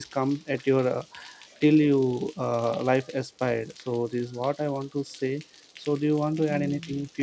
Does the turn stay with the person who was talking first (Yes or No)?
No